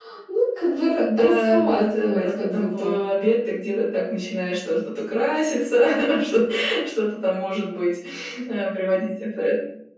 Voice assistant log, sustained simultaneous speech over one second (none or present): present